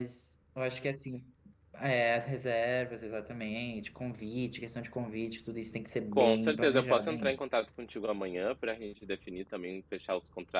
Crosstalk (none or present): present